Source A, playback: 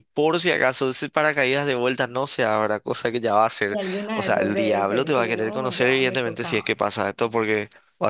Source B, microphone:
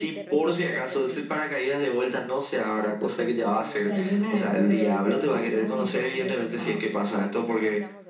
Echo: present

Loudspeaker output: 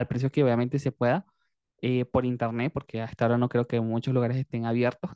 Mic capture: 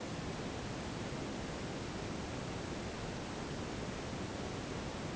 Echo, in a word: none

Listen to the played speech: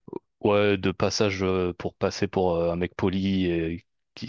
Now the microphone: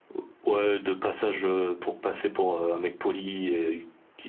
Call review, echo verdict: present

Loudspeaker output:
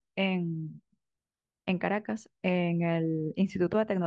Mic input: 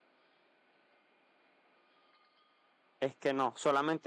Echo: none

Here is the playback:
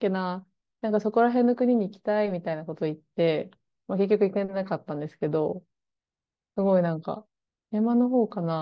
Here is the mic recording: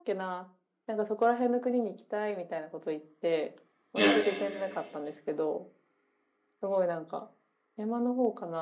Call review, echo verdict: present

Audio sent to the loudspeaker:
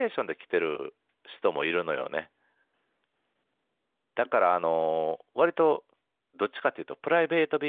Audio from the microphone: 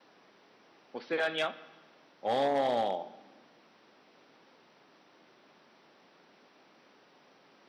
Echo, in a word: none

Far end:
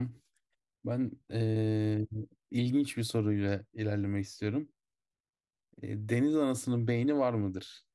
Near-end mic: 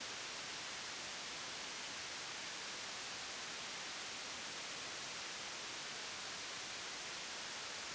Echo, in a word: none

